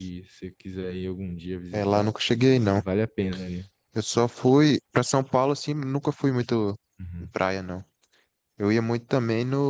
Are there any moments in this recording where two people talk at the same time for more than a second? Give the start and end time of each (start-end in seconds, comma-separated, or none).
none